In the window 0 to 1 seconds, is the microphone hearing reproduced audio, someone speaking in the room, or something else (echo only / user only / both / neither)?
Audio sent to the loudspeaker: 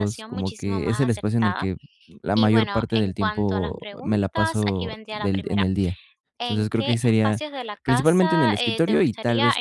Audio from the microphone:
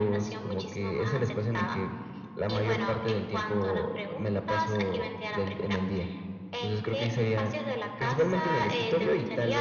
echo only